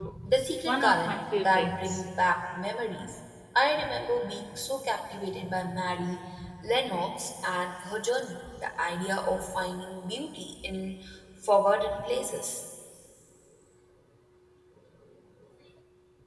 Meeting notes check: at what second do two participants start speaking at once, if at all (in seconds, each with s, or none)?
0.6 s